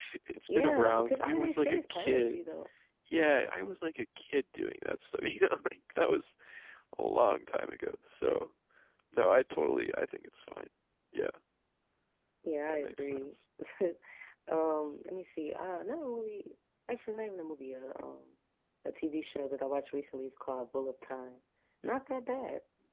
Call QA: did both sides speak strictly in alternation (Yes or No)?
No